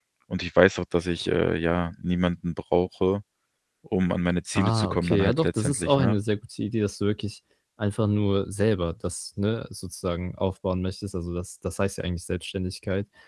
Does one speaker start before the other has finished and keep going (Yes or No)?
Yes